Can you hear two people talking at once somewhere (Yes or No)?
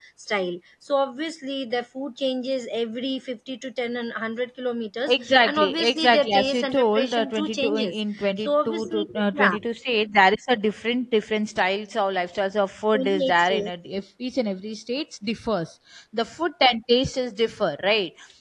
Yes